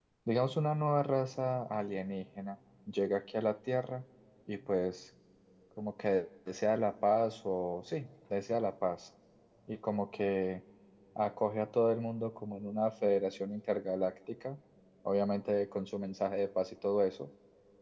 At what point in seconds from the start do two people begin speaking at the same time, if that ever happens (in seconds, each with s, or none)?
none